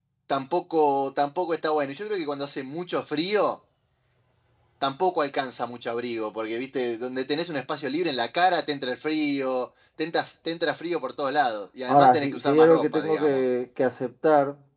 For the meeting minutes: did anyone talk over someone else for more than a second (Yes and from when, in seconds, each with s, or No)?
Yes, from 11.9 s